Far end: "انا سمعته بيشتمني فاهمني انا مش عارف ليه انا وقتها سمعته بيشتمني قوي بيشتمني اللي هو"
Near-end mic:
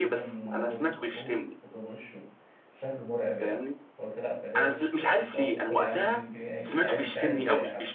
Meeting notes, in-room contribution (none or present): present